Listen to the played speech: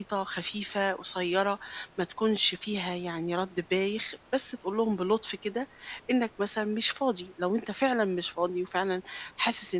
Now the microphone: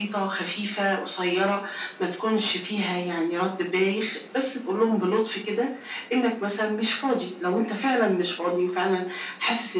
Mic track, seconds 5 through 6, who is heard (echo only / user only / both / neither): echo only